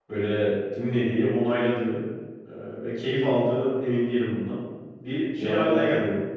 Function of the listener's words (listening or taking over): taking over